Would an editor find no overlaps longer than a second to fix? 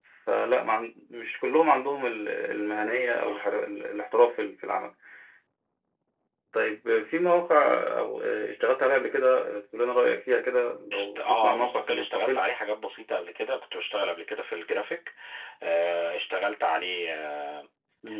No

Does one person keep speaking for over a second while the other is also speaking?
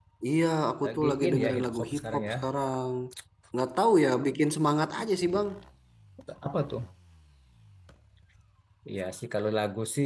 Yes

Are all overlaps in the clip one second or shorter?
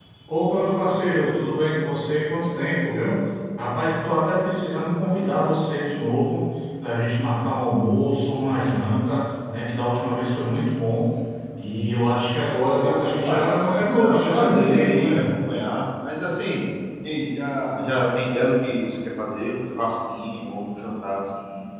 No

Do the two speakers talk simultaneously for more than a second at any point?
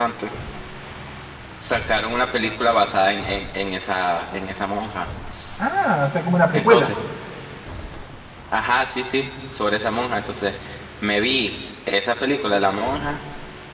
No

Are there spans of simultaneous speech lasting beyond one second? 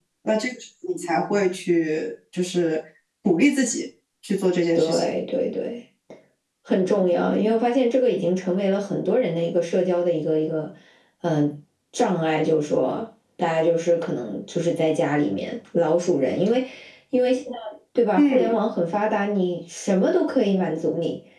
No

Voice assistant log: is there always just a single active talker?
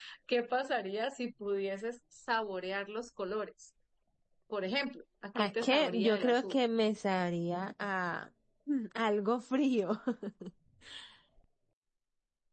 No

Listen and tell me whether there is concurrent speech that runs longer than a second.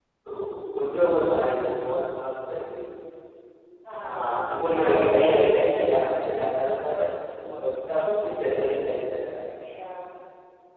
Yes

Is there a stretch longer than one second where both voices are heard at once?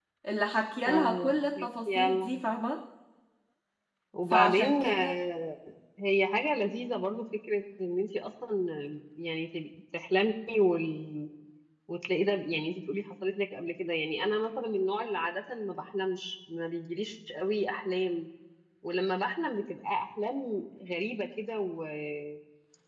Yes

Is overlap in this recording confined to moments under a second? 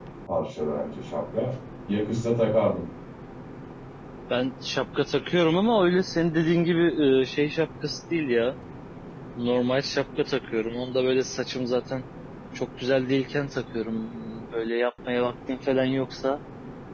Yes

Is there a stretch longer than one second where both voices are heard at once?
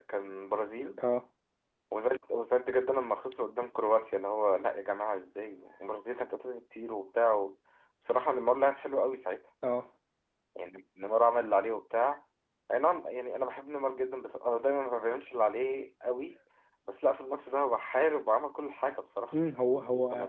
No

